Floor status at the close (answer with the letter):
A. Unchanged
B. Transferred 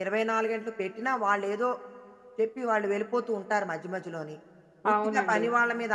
A